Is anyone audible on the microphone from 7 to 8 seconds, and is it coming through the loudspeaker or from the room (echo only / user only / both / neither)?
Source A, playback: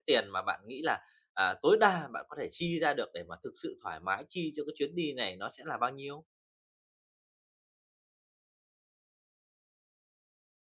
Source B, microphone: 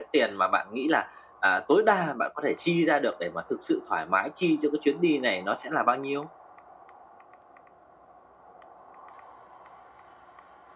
neither